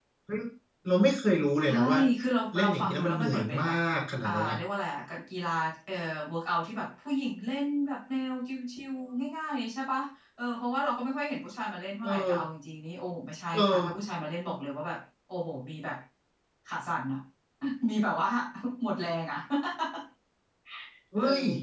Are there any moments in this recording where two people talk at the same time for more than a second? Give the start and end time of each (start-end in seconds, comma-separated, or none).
2.6-3.8